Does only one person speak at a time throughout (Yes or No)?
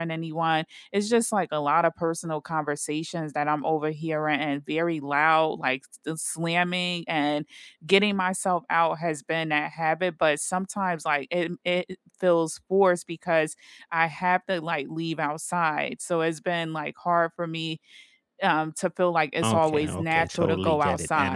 No